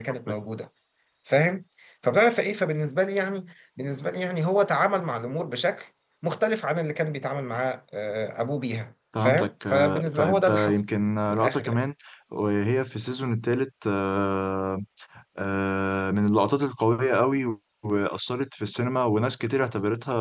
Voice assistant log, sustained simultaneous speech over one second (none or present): present